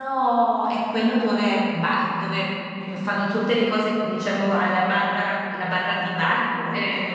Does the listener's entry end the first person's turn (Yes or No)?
Yes